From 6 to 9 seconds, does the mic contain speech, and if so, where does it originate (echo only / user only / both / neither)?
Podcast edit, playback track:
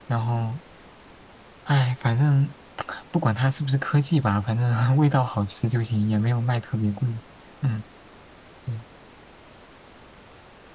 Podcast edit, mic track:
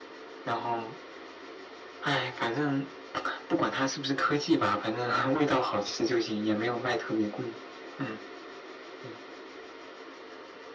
echo only